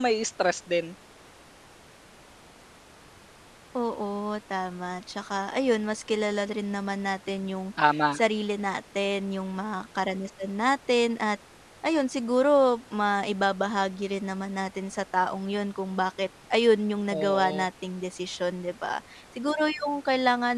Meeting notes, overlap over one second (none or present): none